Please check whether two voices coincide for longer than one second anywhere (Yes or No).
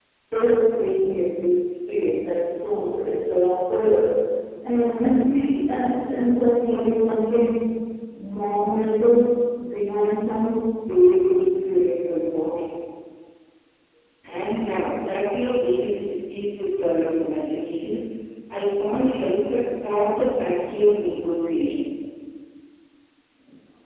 No